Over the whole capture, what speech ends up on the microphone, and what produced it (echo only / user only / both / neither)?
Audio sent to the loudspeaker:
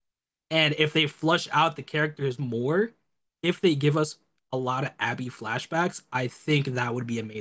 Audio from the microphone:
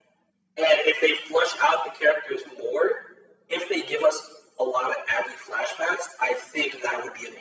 echo only